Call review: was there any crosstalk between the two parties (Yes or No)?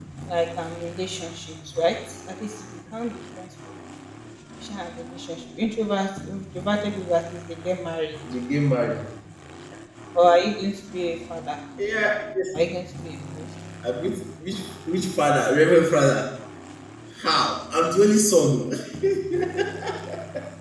No